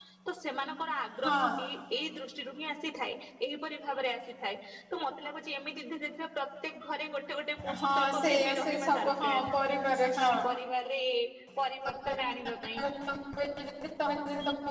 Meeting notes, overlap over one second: present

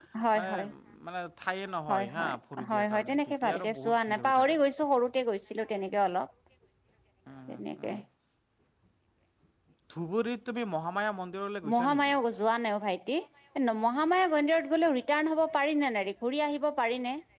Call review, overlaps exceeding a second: present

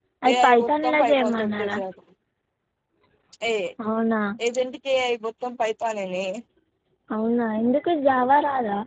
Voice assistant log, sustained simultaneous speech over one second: present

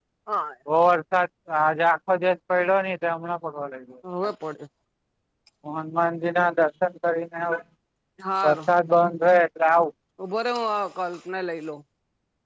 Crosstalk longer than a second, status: none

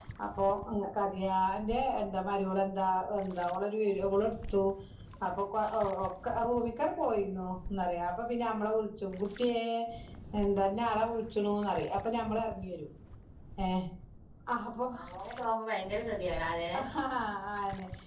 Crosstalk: none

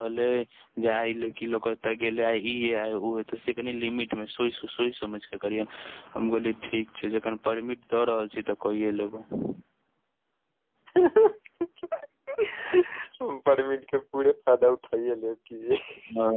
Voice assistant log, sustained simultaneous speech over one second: none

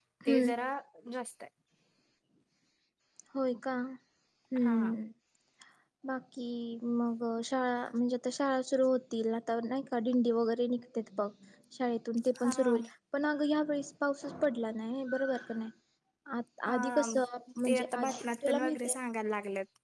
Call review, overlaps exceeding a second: present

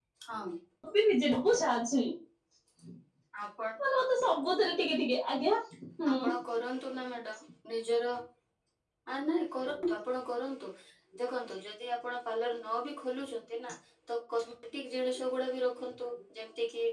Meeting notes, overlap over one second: none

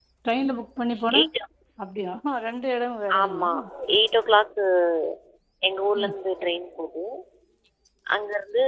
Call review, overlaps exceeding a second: none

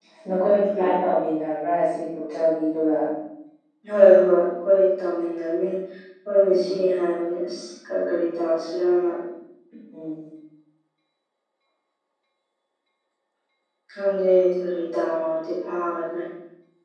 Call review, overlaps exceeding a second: none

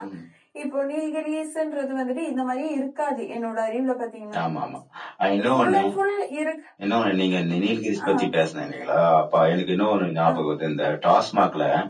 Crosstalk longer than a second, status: none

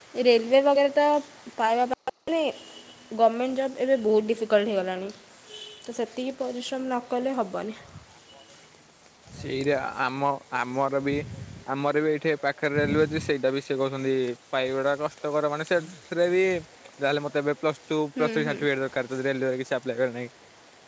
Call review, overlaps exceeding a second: none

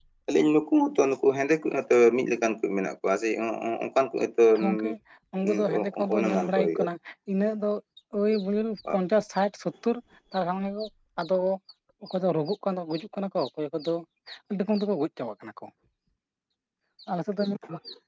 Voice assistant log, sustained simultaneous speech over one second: present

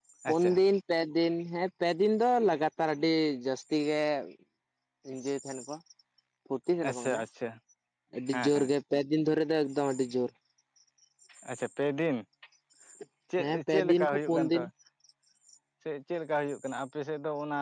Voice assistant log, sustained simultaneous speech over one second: present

